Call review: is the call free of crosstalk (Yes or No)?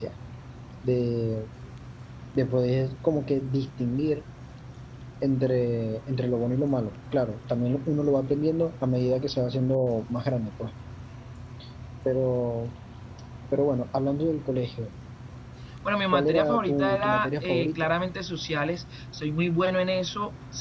No